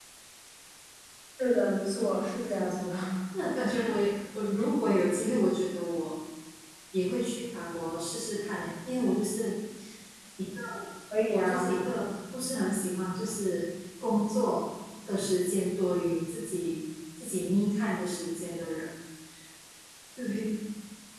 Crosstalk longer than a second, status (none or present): none